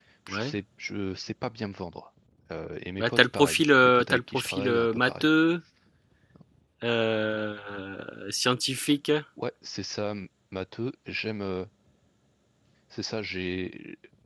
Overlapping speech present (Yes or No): Yes